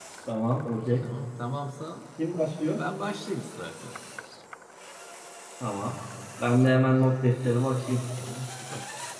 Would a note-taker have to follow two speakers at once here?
No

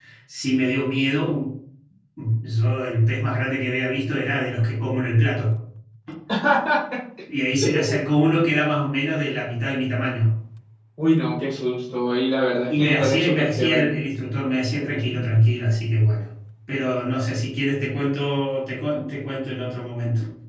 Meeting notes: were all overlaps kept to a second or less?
No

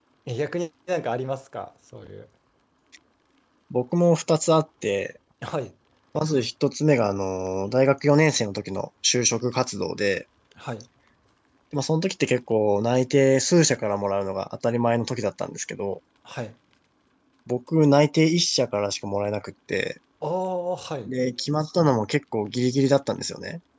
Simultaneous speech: No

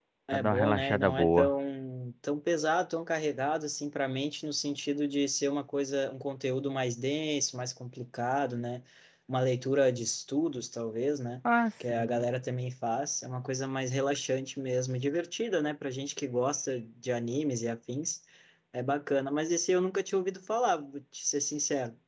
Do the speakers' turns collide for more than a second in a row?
Yes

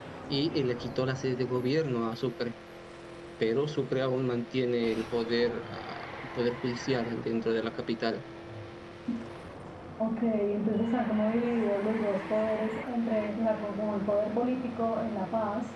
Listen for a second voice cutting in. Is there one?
No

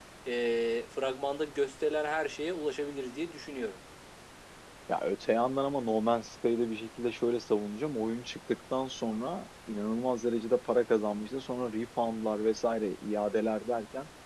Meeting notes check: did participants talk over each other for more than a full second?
No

